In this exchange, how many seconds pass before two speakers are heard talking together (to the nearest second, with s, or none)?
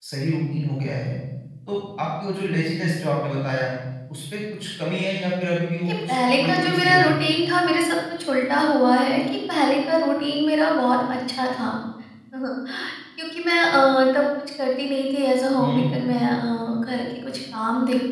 6 s